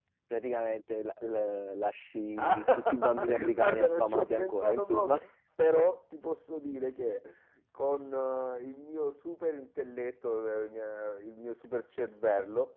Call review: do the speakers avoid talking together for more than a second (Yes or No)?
No